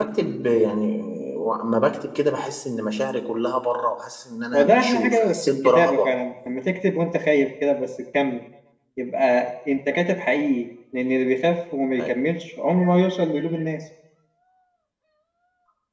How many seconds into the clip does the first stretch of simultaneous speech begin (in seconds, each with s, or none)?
4.5 s